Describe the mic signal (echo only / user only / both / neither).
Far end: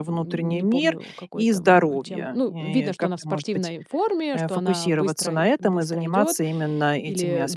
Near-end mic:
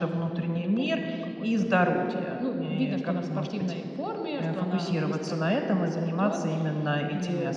echo only